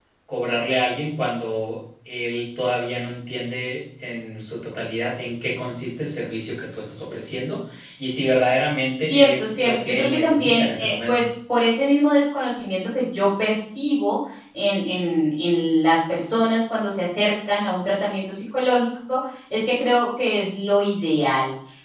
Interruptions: present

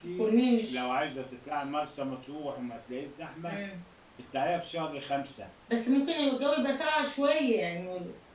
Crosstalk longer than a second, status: none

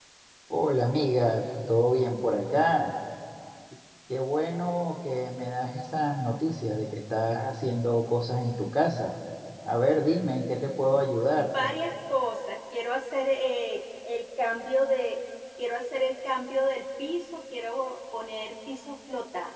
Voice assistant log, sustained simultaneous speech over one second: none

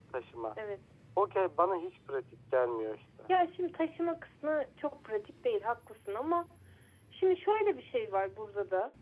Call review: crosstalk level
none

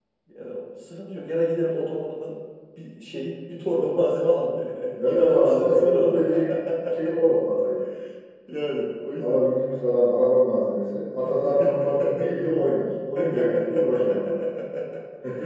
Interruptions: present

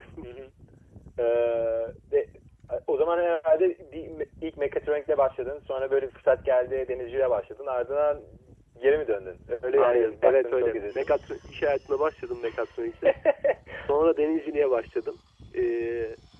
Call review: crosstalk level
present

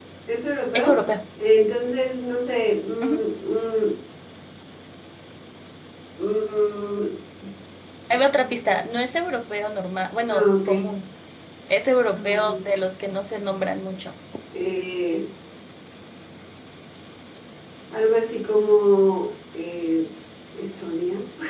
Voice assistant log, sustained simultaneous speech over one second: none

